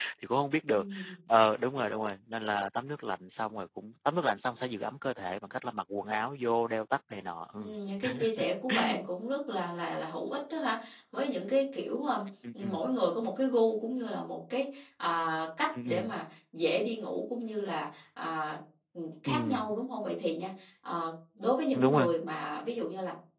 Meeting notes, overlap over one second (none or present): none